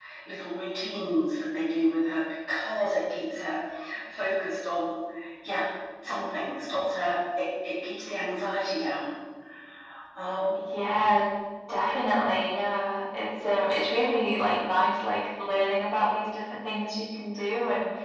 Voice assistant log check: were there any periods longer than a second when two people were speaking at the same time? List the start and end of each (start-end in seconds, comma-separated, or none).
none